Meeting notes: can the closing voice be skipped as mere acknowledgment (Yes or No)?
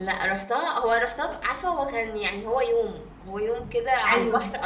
Yes